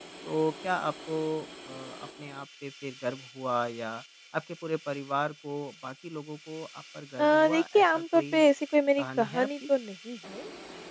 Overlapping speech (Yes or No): Yes